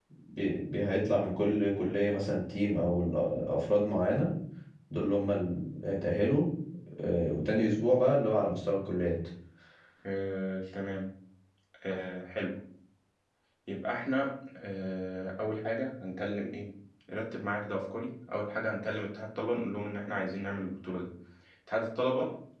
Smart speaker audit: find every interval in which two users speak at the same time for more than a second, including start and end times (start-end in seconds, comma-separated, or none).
none